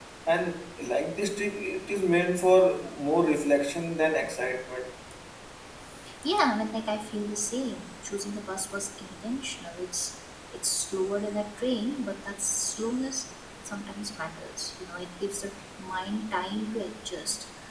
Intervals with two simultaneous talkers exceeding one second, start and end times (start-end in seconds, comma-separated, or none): none